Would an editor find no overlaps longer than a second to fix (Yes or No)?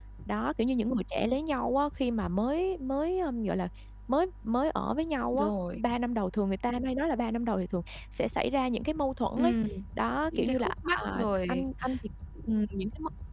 No